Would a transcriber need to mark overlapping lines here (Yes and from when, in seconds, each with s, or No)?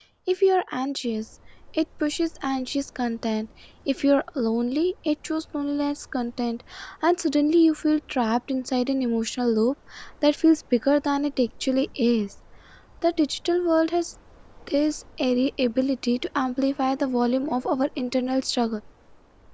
No